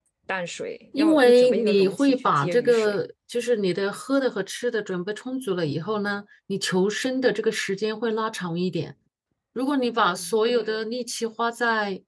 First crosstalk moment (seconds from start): 1 s

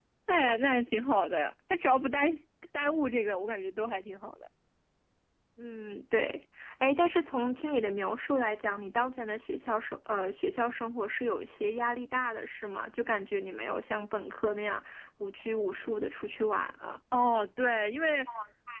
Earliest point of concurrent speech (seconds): none

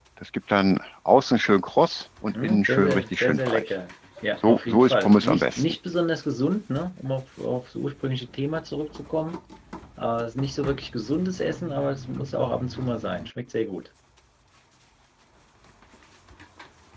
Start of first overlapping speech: 2 s

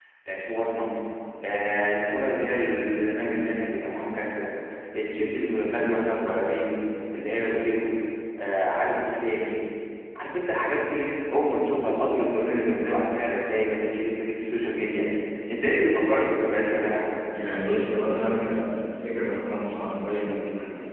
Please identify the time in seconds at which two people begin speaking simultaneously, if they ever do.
none

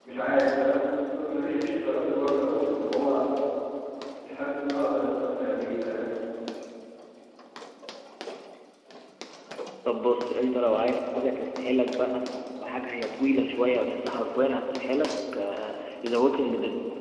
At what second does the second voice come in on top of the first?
none

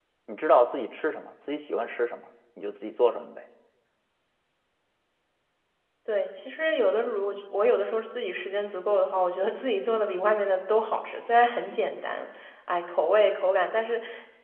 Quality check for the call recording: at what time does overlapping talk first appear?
none

